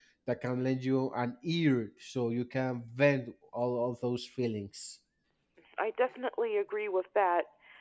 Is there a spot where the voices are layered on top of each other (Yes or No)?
No